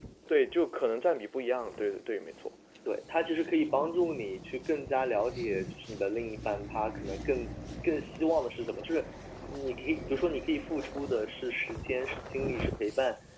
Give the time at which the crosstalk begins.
none

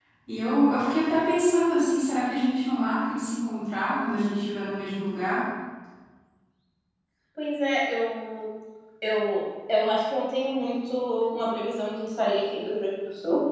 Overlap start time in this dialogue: none

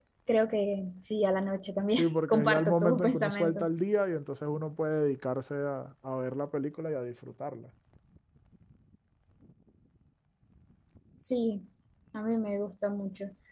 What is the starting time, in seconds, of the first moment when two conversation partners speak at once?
2.0 s

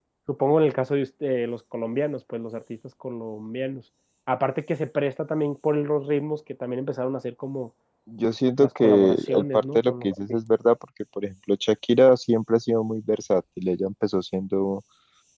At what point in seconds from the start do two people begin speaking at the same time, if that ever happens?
8.6 s

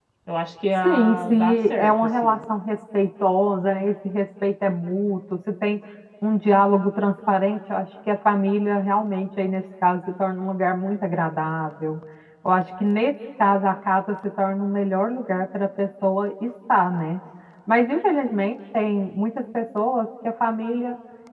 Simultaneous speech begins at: 0.8 s

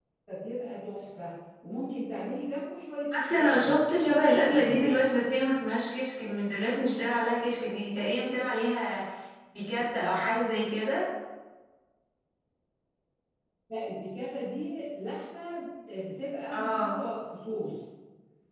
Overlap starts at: 3.1 s

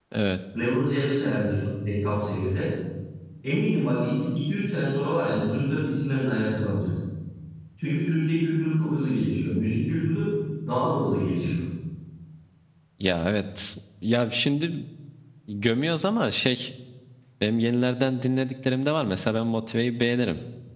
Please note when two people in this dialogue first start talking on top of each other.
none

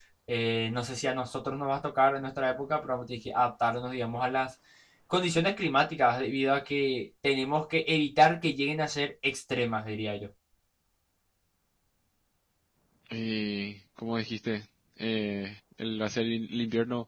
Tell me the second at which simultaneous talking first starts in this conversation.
none

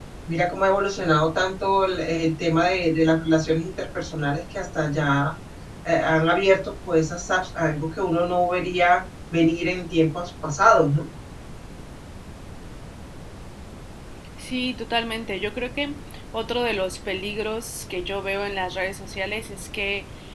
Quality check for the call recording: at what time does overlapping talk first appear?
none

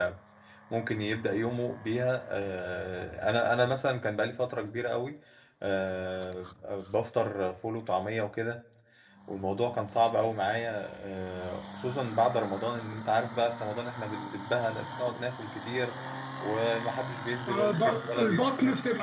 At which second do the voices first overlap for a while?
17.5 s

